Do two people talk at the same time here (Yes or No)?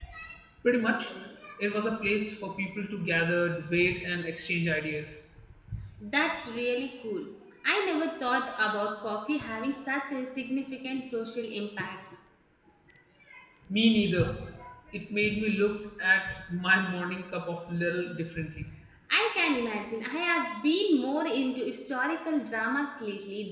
No